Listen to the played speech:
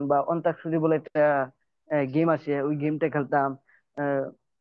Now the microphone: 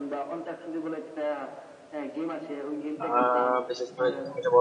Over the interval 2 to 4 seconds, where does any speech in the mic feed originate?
both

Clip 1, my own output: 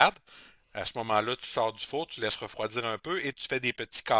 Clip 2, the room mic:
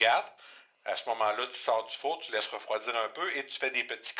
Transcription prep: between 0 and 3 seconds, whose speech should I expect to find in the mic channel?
echo only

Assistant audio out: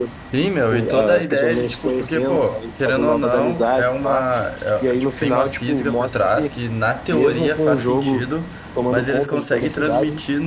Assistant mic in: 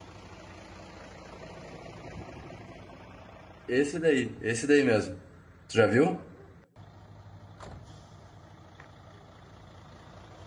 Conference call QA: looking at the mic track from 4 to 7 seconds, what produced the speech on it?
user only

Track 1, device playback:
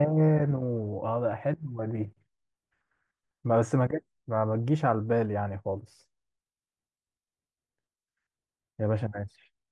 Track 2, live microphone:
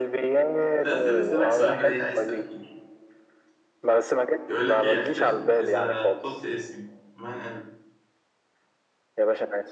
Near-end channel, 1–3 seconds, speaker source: both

